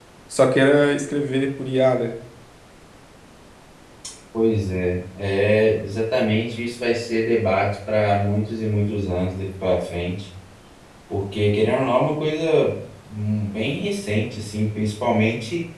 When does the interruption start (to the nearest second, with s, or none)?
none